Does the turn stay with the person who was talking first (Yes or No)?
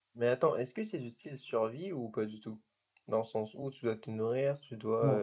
No